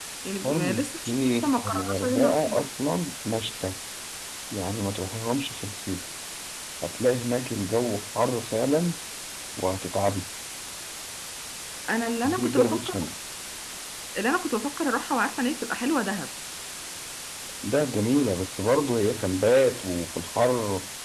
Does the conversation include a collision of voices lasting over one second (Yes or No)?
Yes